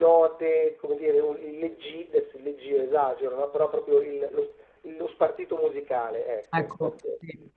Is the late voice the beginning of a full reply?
Yes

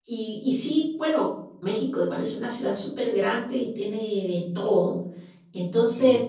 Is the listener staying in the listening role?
Yes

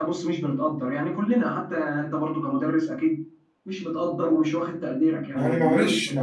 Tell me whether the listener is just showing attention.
No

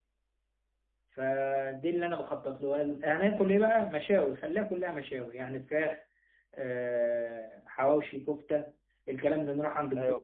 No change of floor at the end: Yes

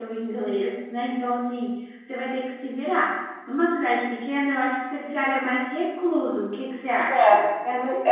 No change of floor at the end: No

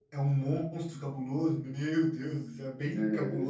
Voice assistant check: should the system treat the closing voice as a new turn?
No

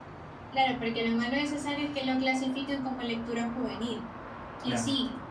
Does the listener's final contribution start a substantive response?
No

